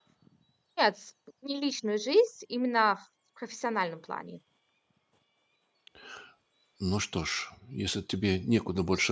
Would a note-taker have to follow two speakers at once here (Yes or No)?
No